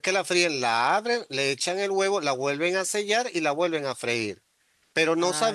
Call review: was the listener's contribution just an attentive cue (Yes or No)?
Yes